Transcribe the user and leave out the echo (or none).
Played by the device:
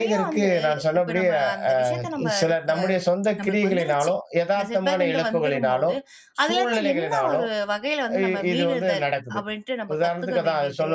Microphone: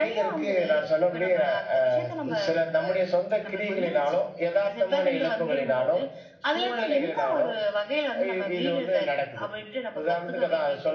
none